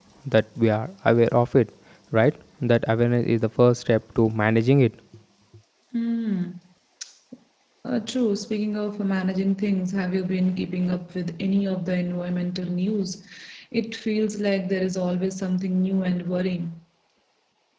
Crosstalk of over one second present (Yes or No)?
No